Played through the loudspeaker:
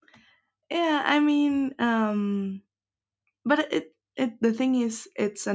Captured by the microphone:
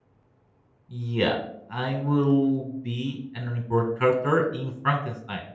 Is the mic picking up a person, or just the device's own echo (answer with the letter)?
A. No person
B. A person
B